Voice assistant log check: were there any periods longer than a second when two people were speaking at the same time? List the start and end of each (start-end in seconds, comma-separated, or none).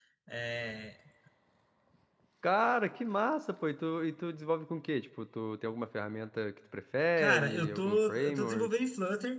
7.2-8.7